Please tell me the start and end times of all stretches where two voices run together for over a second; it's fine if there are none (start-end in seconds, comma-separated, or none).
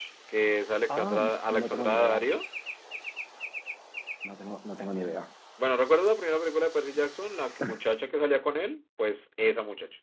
0.9-2.2